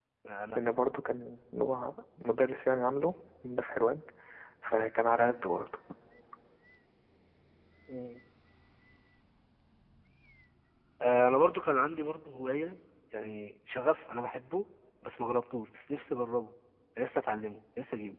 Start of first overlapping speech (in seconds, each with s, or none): none